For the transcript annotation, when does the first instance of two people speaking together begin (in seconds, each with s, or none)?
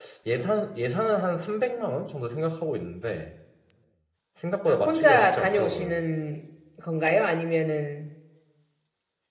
4.6 s